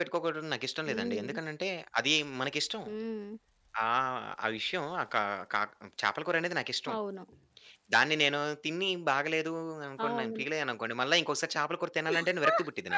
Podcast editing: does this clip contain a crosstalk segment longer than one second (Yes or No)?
No